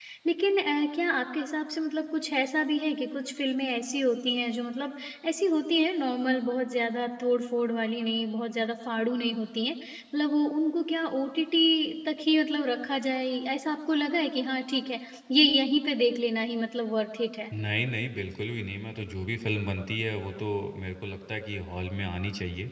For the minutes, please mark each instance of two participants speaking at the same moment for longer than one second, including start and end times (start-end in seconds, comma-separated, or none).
none